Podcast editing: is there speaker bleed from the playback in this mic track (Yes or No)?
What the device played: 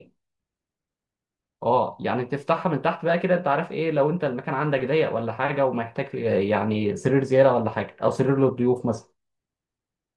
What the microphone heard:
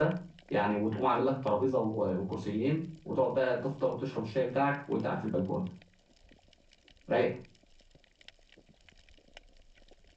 No